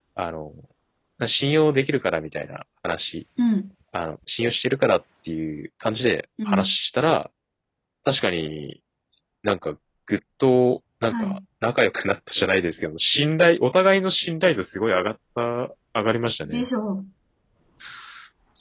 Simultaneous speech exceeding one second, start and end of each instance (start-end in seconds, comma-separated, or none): none